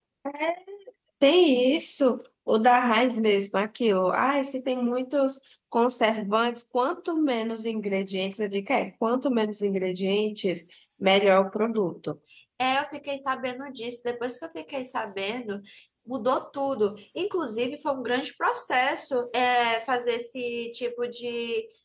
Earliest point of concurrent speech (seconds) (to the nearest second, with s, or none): none